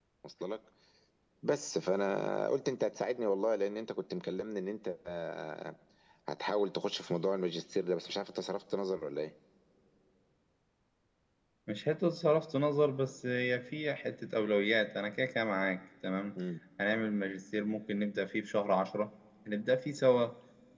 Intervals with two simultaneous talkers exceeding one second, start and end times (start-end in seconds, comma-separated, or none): none